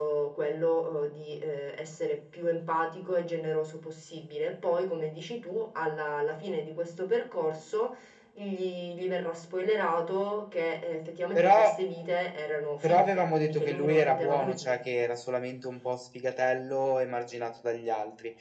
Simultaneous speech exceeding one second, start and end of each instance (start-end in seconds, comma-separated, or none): 12.8-14.8